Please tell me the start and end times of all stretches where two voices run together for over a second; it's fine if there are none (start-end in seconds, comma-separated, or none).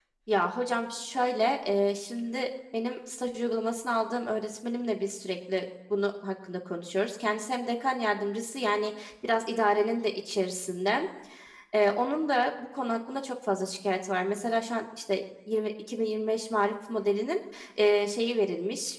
none